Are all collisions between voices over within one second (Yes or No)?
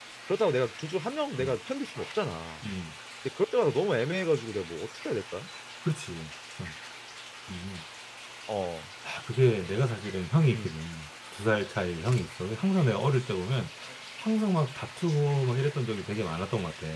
Yes